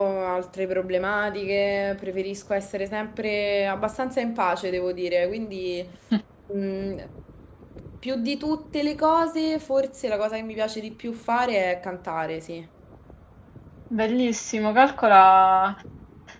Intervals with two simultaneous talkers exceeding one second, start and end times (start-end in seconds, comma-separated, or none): none